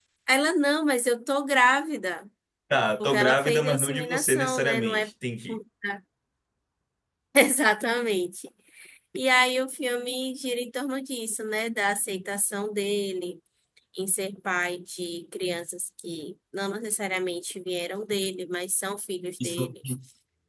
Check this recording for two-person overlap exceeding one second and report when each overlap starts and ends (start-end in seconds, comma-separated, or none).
3.0-5.1